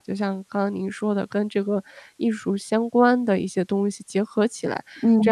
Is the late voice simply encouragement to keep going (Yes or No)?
Yes